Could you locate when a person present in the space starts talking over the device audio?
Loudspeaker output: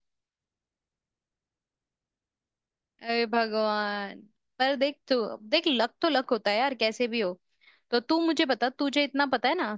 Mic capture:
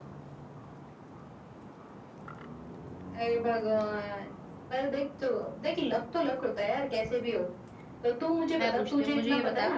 8.6 s

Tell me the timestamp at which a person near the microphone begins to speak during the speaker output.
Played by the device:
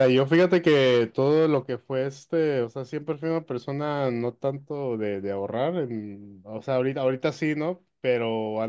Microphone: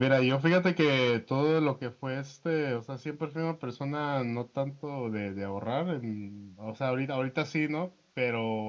none

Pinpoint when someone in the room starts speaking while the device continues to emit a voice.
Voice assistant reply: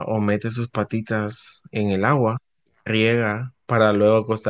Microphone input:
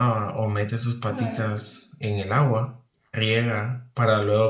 1.1 s

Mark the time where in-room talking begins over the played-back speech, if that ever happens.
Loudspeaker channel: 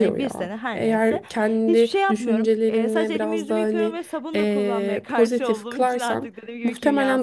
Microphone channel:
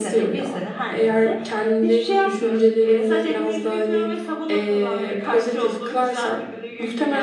none

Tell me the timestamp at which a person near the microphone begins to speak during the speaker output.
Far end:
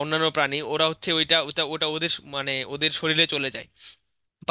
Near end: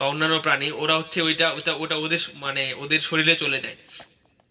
none

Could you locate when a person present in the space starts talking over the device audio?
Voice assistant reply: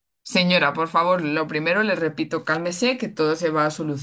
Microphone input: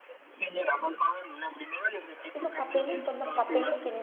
2.3 s

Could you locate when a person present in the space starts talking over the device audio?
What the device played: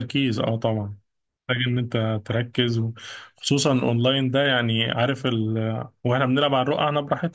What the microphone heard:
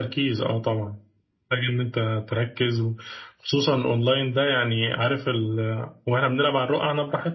none

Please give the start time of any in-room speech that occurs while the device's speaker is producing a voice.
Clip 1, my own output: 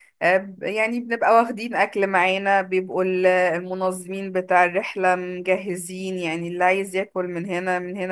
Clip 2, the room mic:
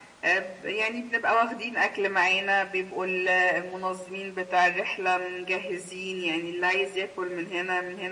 none

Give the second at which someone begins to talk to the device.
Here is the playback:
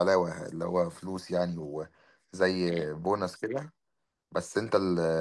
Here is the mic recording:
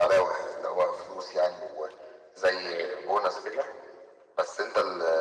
none

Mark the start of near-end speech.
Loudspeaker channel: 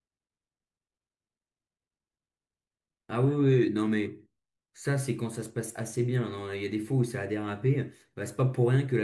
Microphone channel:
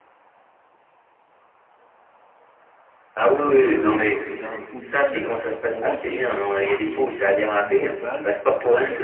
3.6 s

